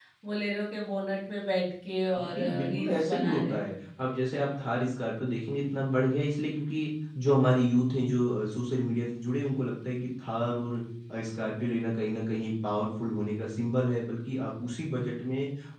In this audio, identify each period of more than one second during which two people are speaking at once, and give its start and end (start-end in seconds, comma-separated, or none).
2.2-3.7